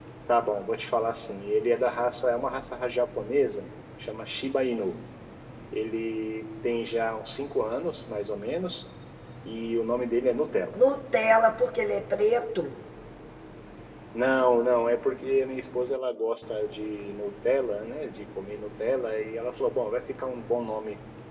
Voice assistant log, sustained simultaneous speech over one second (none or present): none